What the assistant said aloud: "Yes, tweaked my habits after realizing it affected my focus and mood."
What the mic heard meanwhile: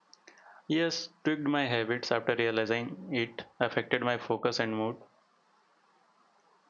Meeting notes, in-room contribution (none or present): none